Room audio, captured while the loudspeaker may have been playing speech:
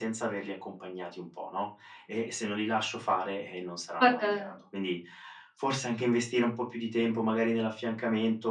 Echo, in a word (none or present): present